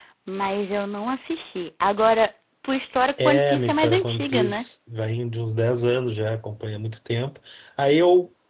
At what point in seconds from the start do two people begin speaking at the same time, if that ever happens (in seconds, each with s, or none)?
3.2 s